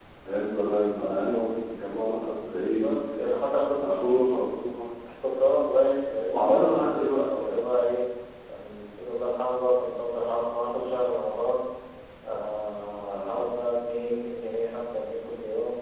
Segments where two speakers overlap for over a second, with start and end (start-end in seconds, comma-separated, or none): 6.3-7.6